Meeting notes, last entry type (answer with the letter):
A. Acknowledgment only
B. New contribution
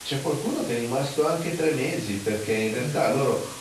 A